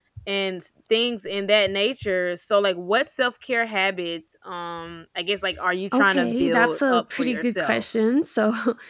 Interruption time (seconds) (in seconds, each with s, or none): 5.9 s